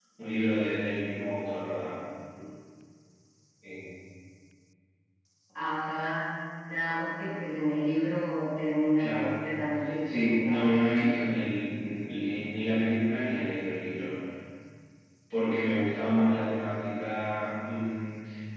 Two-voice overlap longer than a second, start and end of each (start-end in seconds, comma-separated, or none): 10.0-11.3